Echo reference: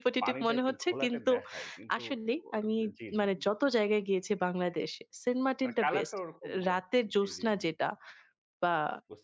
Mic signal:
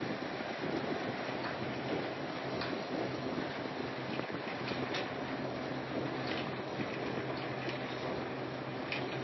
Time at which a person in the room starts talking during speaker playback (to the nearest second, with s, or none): none